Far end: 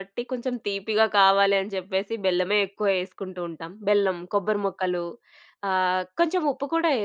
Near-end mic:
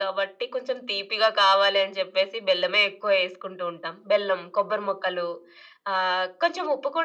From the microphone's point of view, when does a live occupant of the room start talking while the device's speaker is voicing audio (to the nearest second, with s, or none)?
none